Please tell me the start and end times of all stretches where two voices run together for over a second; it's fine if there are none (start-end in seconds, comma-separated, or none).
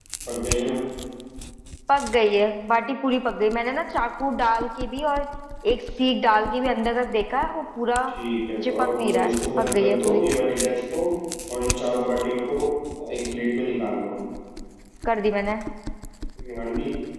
8.6-10.3